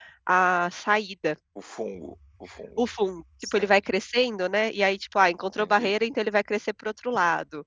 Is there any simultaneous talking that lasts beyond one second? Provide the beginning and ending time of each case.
none

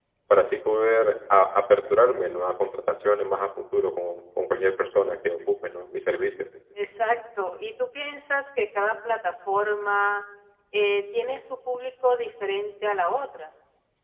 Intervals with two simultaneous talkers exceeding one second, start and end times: none

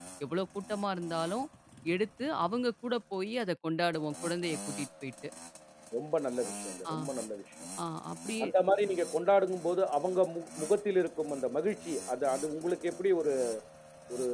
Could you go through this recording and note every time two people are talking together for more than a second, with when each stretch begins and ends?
none

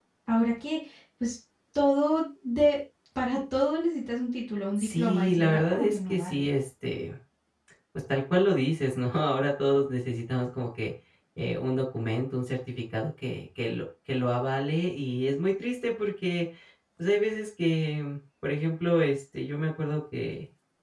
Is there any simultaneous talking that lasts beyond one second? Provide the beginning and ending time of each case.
4.8-6.5

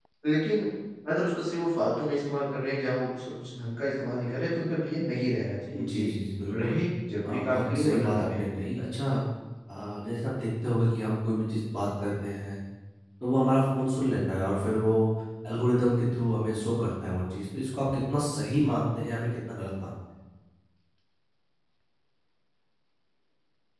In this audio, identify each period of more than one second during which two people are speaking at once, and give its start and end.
7.2-8.5

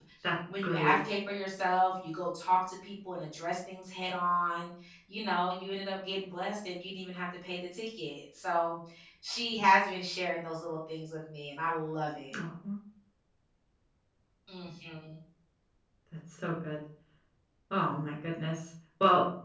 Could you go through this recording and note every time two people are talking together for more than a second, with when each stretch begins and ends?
none

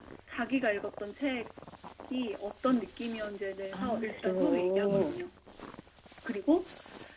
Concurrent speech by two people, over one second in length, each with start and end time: 3.7-5.2

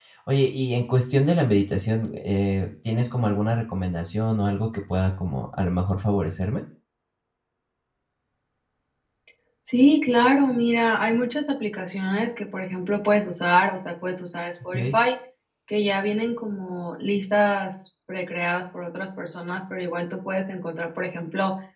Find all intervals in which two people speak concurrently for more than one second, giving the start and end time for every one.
none

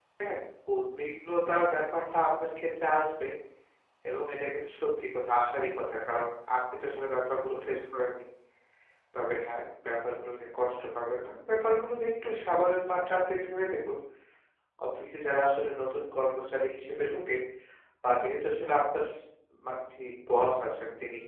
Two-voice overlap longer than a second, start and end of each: none

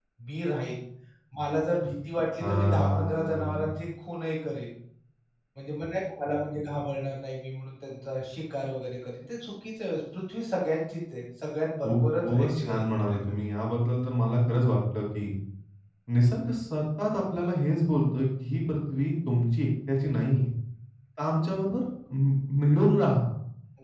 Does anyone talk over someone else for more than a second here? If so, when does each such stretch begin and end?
2.4-3.7, 11.8-13.2

